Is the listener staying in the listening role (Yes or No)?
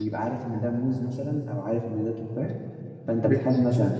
Yes